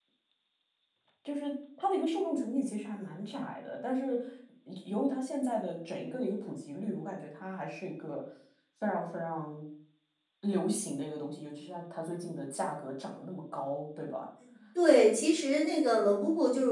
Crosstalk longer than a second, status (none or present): none